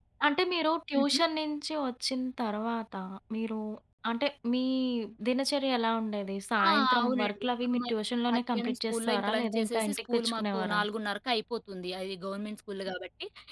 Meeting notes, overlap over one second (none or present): present